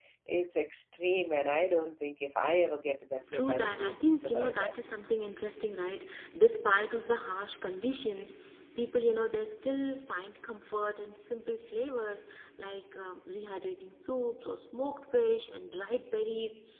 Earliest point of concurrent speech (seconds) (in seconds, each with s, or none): 3.3 s